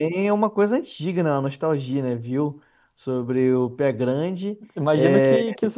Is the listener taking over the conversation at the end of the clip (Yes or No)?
Yes